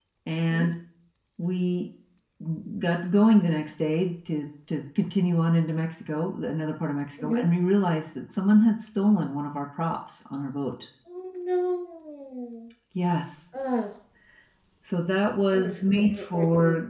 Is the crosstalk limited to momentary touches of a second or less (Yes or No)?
No